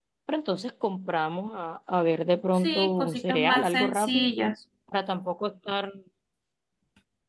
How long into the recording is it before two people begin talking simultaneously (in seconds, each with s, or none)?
2.6 s